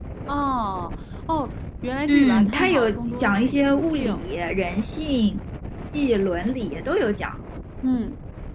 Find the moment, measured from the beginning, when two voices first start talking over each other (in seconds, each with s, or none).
2.1 s